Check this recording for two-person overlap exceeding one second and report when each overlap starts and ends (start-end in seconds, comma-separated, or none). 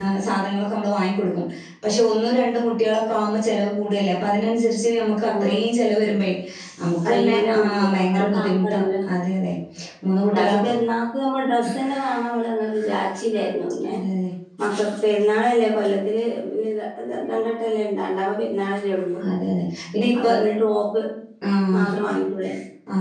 7.0-8.8